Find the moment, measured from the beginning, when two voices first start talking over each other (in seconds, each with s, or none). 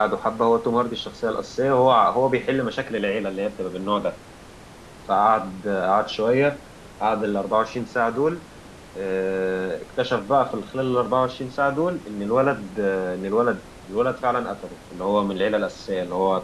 none